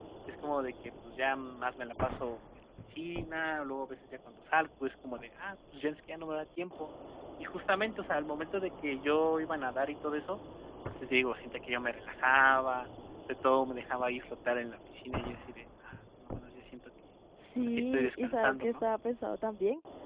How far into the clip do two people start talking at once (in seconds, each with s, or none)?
17.4 s